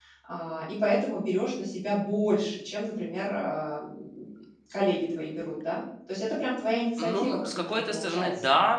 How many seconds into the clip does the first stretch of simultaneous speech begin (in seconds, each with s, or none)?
7.0 s